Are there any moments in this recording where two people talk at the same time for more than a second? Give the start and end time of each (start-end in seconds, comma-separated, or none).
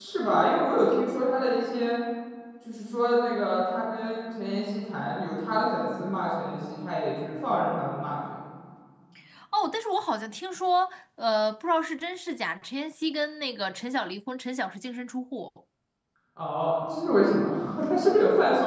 none